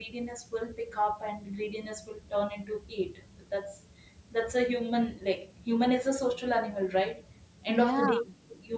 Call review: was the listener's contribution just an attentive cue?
Yes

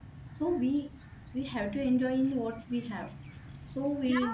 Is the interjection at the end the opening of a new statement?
Yes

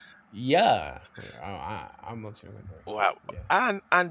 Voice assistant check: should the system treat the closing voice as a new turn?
Yes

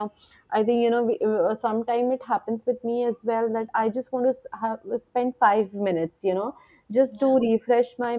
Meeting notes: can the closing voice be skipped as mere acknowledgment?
Yes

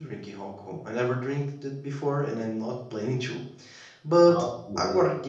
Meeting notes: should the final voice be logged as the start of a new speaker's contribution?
No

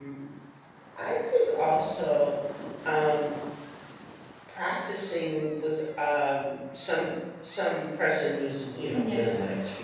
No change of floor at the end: Yes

